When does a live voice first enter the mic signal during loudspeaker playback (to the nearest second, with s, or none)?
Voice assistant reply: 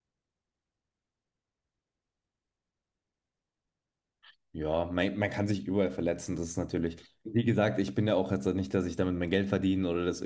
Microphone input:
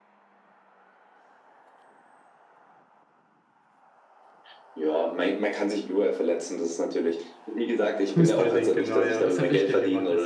8 s